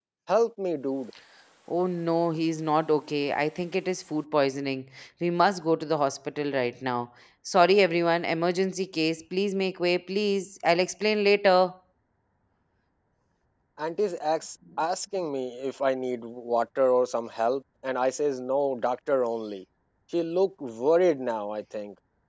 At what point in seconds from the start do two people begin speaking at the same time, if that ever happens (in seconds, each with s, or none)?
none